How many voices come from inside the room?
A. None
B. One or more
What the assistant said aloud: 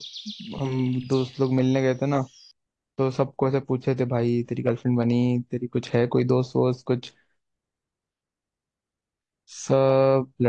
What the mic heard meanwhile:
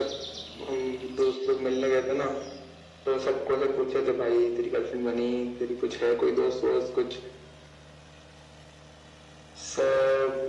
A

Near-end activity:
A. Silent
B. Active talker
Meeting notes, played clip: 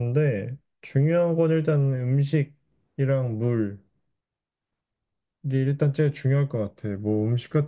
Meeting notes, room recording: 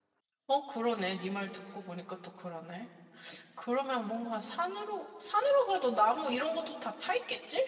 B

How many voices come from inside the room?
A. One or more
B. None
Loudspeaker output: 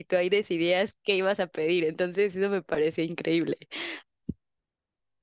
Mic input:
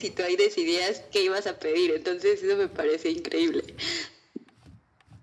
B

